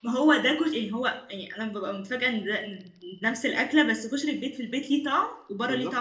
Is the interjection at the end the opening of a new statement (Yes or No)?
Yes